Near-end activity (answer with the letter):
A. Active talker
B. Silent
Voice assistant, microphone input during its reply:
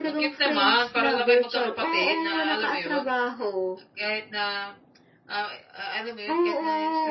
A